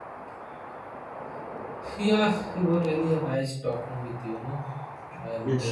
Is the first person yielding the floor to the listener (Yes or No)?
Yes